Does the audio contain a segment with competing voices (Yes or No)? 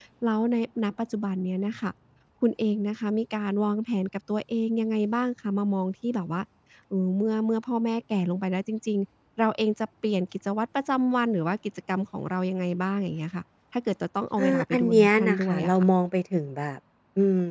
Yes